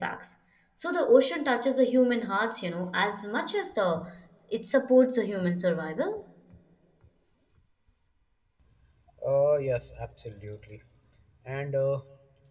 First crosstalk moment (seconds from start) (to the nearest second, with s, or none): none